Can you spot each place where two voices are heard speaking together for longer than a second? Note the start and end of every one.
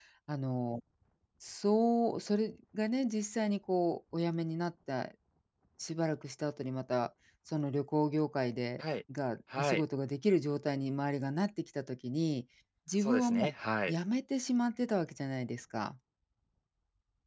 none

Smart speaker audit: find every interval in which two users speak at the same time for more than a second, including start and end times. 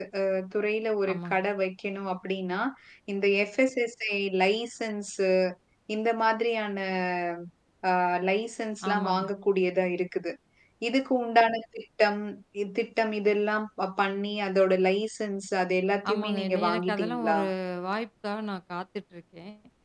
16.1-17.4

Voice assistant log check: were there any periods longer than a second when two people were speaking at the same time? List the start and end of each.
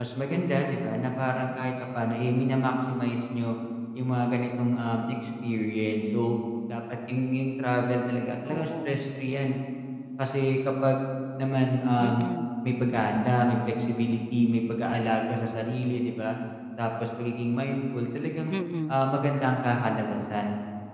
none

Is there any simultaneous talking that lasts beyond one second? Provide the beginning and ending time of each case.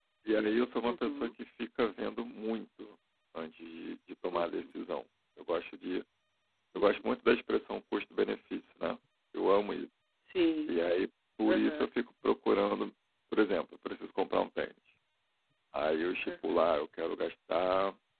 none

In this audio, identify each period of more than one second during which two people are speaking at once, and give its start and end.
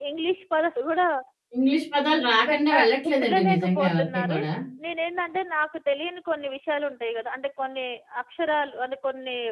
2.5-4.4

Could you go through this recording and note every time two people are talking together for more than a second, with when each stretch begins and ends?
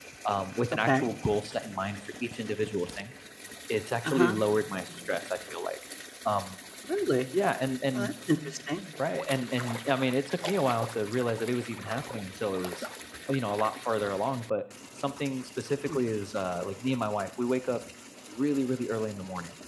none

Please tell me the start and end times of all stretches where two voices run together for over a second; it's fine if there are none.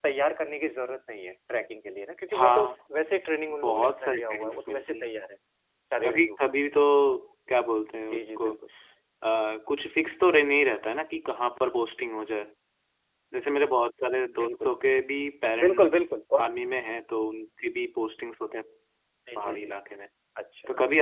3.5-5.1

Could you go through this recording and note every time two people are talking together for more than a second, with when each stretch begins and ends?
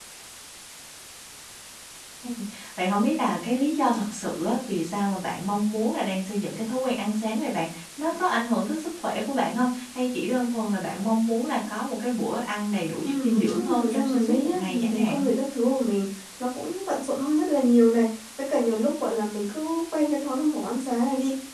13.0-15.3

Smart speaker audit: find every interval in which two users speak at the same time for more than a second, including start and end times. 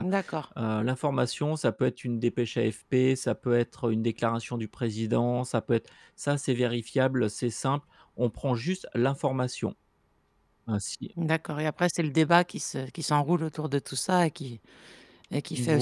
none

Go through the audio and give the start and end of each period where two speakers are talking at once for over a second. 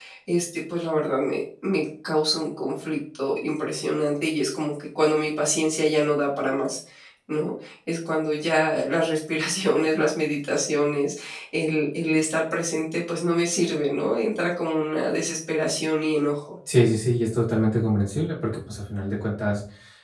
none

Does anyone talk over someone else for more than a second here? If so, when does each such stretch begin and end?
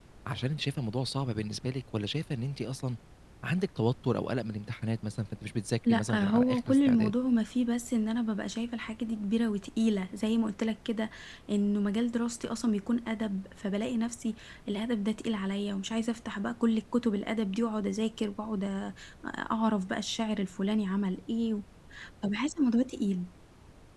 5.8-7.1

